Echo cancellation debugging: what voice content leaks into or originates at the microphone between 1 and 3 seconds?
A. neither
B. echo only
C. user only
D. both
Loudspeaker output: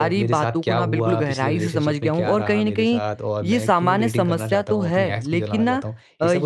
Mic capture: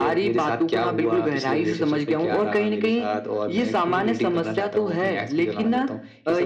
B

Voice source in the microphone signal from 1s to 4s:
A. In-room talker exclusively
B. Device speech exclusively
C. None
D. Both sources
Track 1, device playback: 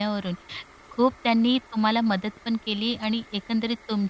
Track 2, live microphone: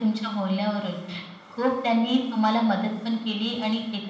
B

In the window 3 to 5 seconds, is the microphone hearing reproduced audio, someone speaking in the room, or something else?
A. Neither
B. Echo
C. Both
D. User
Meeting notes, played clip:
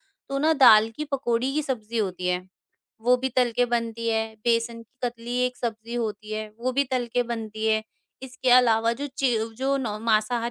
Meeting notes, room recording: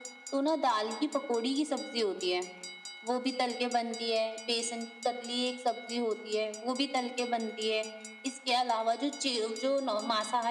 B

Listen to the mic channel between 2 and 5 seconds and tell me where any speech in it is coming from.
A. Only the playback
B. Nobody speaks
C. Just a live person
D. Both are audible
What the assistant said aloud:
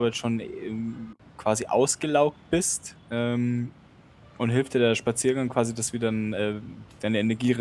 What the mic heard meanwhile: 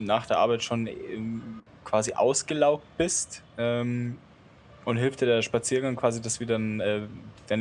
A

